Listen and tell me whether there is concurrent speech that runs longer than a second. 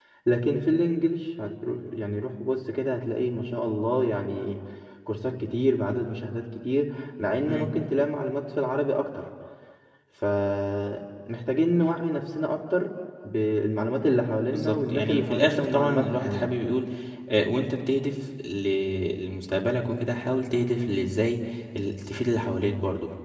Yes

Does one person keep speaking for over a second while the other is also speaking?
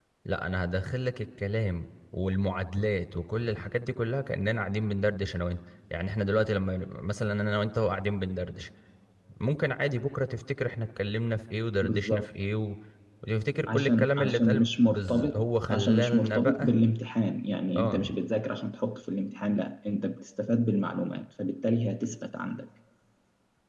Yes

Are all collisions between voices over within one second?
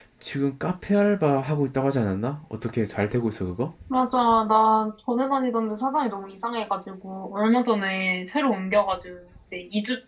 Yes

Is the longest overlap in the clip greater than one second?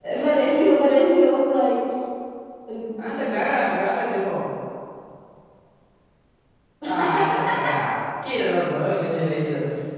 No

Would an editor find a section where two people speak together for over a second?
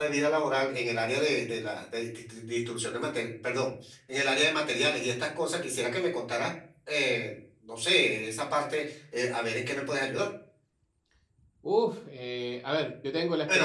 No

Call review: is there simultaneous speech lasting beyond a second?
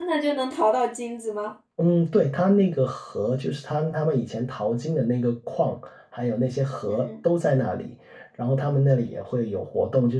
No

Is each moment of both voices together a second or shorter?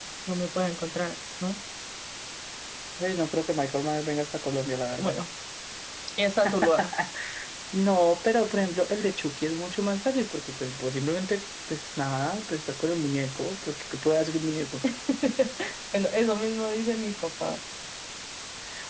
Yes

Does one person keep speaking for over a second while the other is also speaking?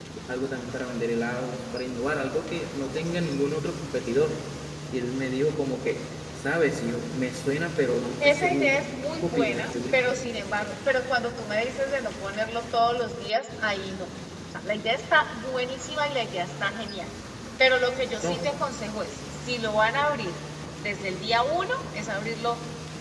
Yes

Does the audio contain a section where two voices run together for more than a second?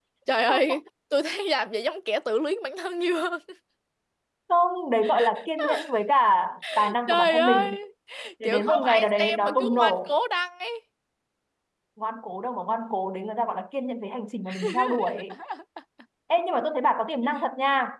Yes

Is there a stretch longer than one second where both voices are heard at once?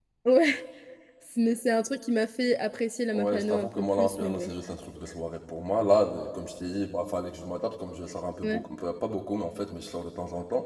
Yes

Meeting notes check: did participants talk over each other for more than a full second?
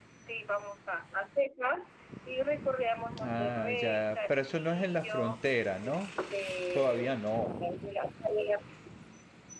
Yes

